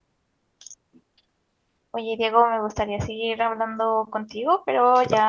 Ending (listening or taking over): listening